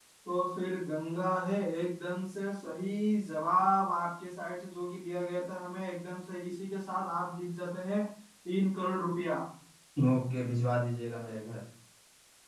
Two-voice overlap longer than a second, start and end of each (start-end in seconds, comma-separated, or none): none